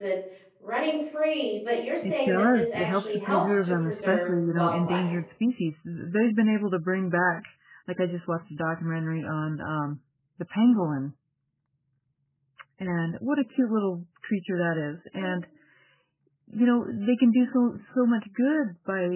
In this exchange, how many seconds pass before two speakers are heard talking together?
2.0 s

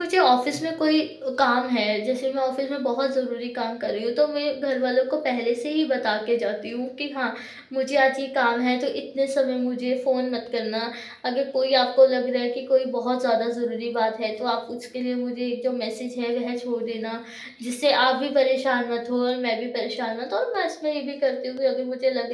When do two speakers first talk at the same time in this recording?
none

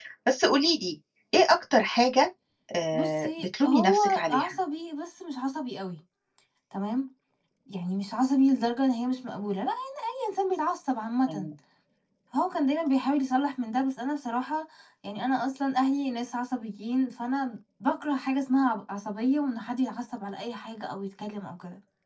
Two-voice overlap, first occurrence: 2.9 s

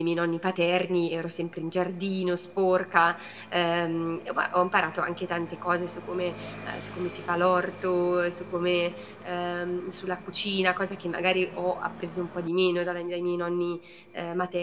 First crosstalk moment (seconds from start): none

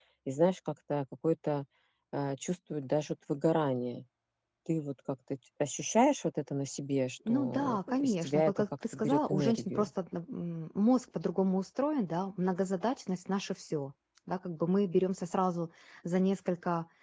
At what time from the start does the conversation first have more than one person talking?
7.3 s

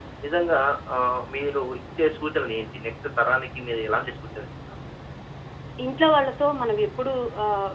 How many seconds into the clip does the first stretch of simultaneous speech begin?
none

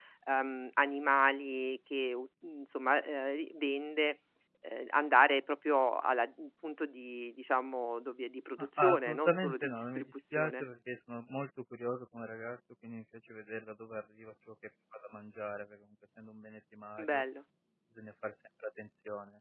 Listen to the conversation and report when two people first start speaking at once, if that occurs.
8.8 s

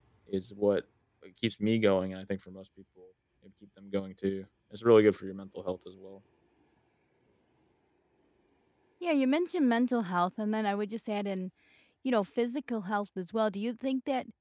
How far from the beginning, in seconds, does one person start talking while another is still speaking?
none

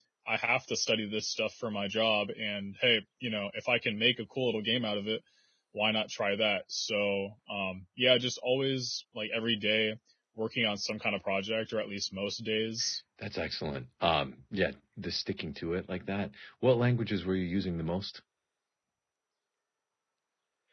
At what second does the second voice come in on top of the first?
none

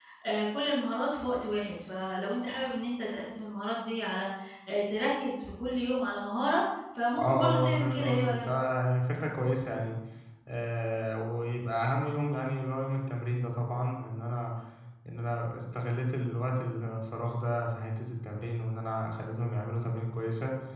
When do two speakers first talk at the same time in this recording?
7.1 s

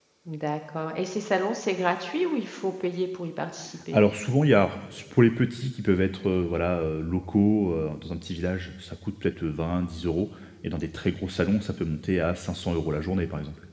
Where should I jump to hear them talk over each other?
none

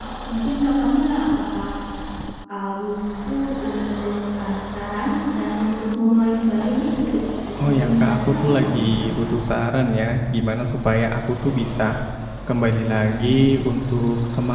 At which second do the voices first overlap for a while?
7.6 s

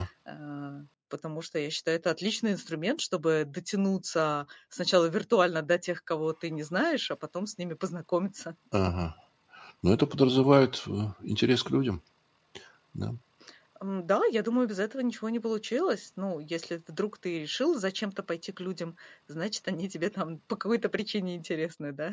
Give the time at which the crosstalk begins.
none

